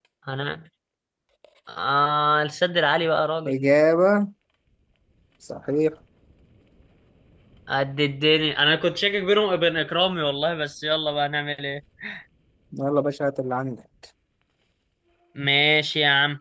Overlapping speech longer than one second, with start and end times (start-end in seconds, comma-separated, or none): none